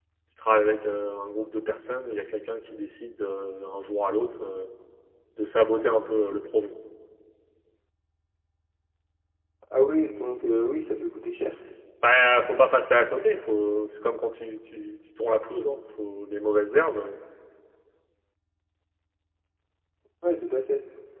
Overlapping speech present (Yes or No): No